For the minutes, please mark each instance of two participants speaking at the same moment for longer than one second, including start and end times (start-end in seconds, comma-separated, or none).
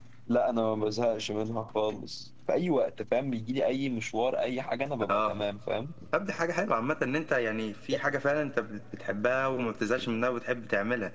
none